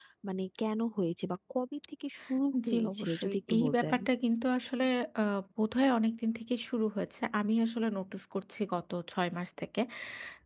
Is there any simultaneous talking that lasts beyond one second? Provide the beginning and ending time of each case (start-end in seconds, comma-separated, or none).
2.7-4.0